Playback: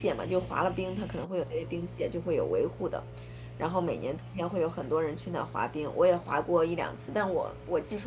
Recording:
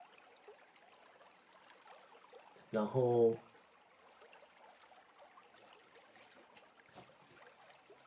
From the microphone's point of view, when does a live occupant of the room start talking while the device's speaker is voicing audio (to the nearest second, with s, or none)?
3 s